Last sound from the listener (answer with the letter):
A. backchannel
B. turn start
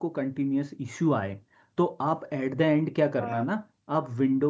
A